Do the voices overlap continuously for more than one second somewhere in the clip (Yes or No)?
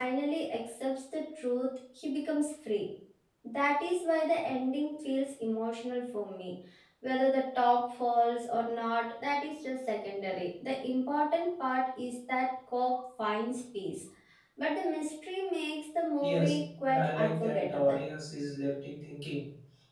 Yes